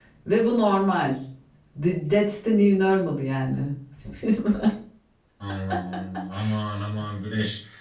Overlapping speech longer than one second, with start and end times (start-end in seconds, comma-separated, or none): none